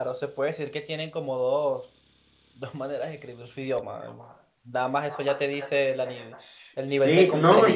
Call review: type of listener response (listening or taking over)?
taking over